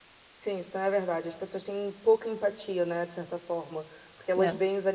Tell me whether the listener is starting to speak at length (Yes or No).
No